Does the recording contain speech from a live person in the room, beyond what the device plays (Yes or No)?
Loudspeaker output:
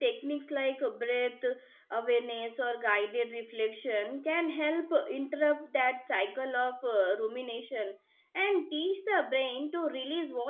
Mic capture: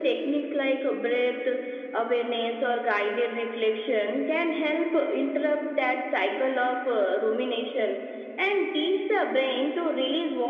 No